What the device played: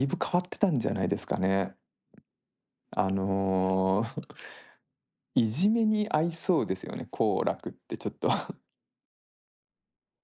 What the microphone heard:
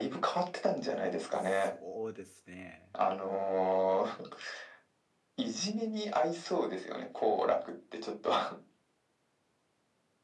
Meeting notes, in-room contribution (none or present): present